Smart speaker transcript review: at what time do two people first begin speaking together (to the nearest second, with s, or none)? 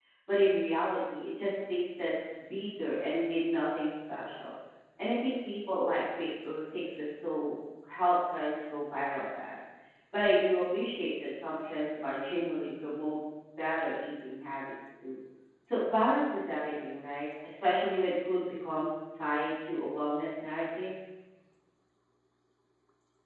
none